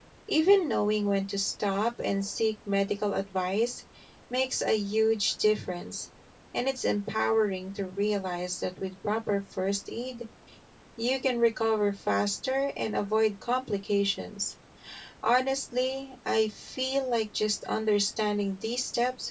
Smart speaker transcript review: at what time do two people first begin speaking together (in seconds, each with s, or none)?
none